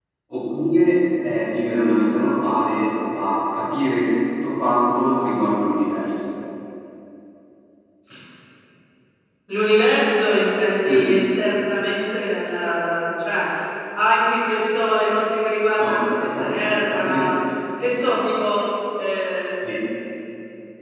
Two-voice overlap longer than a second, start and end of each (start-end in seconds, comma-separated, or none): 15.8-17.3